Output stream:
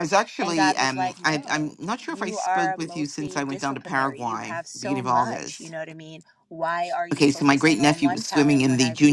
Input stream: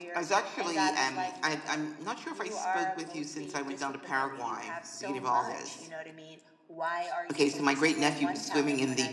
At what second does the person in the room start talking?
none

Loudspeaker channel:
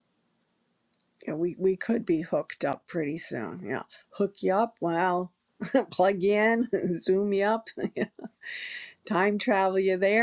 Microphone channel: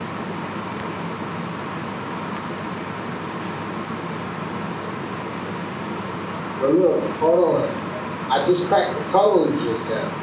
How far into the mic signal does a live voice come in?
6.6 s

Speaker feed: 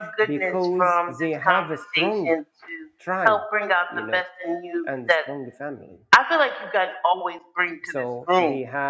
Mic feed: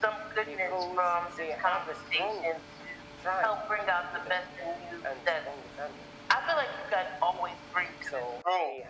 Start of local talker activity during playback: none

